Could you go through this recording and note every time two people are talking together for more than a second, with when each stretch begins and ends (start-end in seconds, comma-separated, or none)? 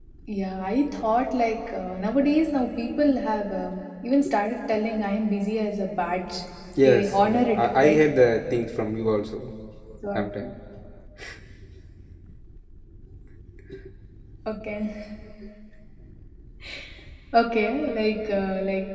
6.8-8.1